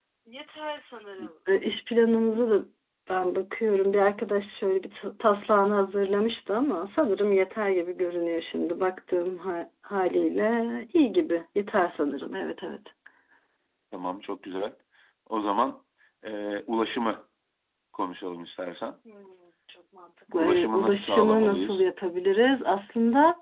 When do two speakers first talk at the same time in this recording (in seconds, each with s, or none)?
20.4 s